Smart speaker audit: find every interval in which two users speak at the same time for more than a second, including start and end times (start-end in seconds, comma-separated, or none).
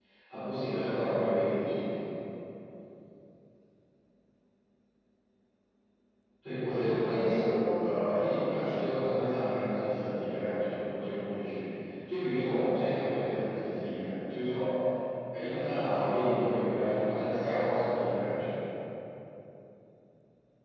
6.7-8.9